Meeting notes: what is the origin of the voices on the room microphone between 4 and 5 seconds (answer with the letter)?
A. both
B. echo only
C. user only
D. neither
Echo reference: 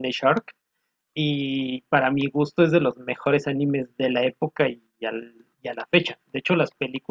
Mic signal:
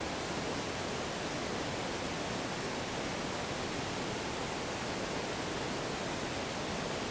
D